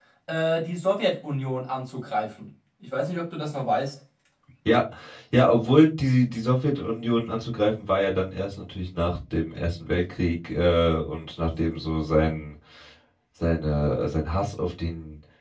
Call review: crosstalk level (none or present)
none